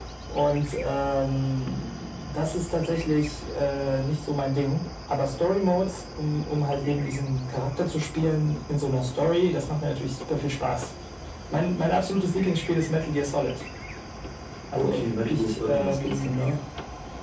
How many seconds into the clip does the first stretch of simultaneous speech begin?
14.8 s

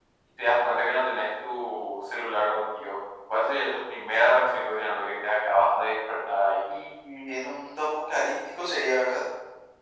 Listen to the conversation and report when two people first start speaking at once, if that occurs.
none

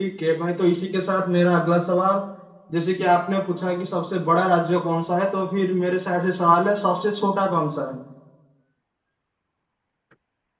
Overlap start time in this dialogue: none

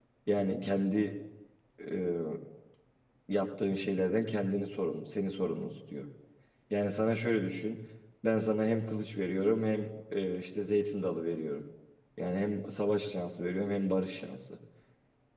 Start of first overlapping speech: none

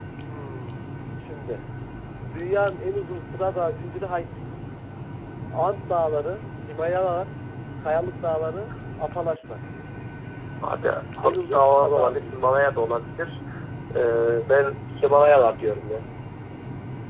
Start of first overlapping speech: 11.2 s

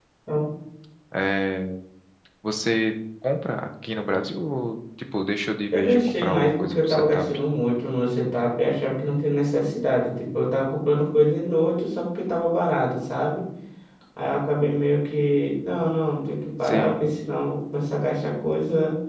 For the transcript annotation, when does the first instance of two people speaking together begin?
5.7 s

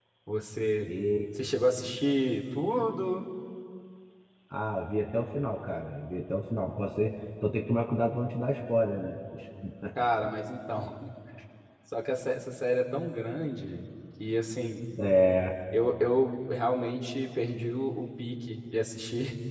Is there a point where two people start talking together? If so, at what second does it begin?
none

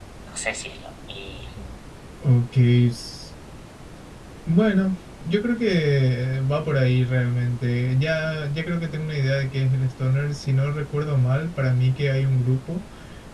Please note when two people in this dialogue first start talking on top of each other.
none

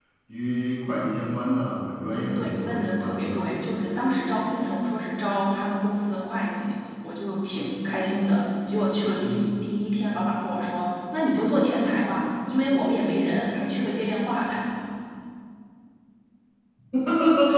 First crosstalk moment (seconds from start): 2.1 s

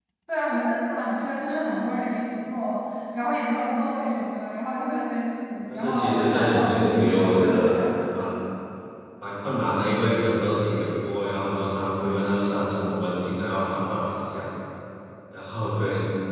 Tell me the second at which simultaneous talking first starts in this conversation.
5.7 s

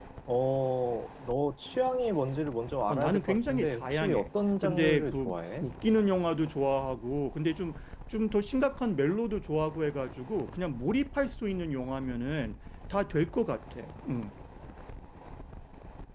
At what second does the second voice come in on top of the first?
2.9 s

